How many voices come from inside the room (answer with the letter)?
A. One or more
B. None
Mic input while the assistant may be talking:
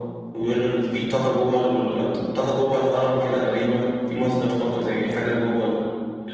B